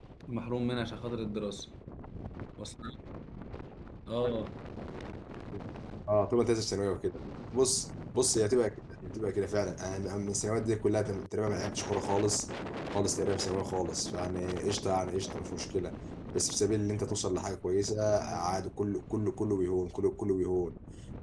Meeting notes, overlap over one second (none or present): none